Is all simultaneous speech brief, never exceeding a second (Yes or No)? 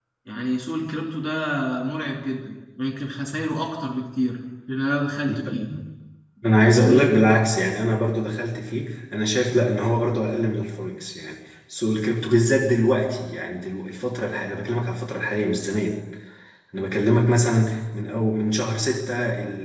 Yes